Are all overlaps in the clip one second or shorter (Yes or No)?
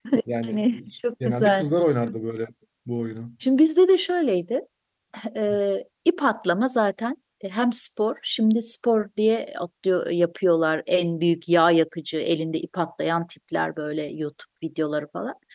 Yes